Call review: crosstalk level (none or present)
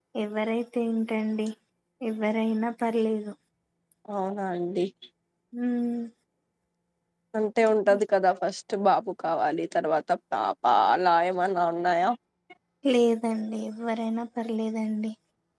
none